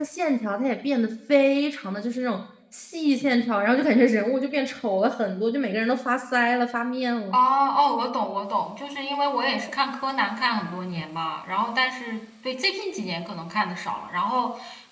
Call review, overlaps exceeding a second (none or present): none